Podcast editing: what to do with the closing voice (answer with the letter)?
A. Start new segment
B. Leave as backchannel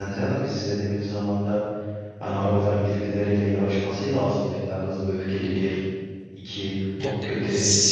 A